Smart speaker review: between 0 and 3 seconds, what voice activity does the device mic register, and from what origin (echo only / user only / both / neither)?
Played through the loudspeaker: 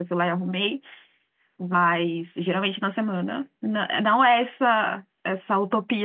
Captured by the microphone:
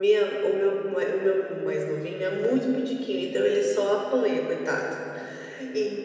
user only